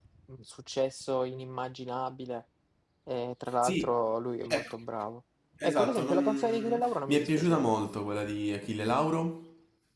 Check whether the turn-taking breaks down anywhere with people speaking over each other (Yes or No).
Yes